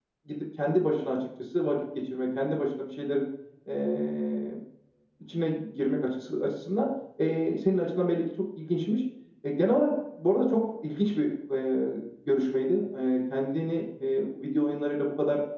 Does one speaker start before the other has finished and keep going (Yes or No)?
No